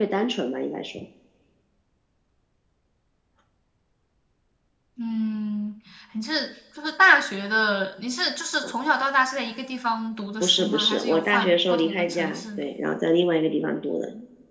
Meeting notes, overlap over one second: present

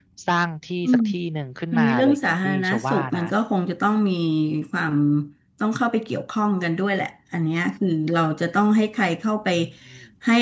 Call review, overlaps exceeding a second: present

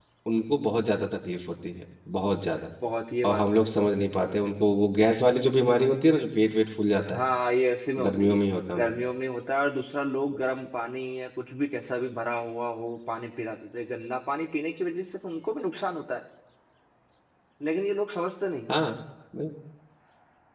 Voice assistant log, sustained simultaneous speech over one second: none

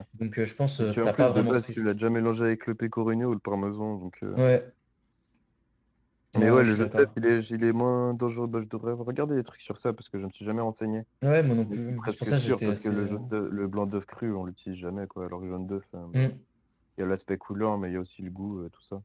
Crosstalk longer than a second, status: present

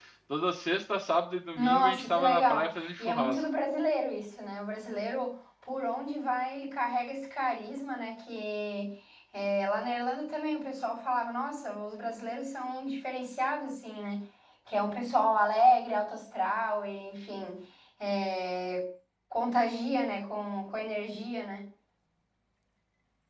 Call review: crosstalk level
present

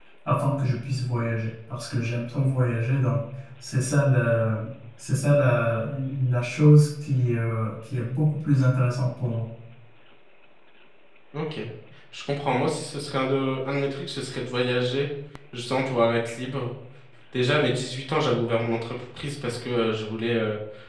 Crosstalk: none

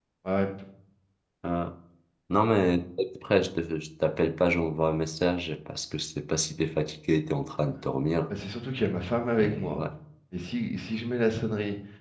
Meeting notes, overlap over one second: none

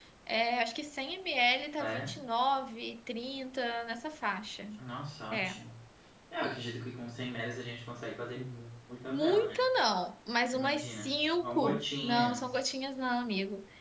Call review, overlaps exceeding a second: present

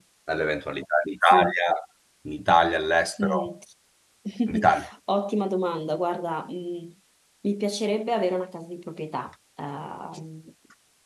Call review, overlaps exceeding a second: none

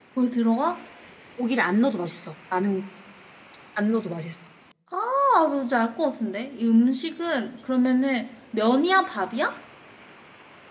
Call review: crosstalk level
none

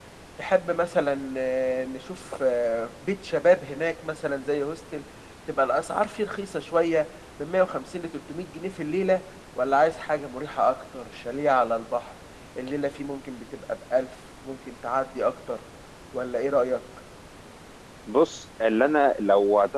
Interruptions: none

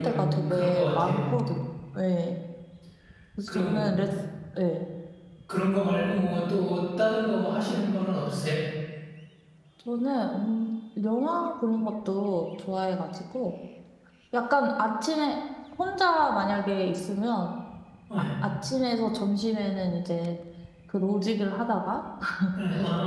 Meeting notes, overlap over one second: present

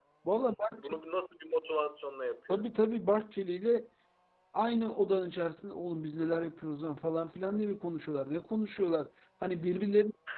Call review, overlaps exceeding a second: none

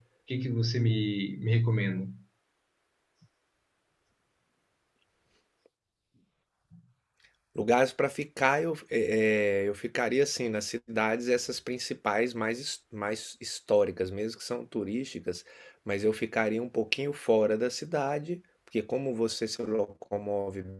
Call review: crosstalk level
none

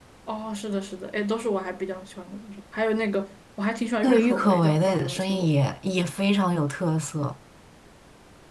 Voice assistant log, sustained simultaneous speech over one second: present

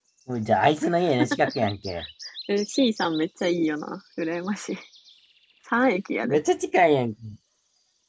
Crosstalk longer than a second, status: none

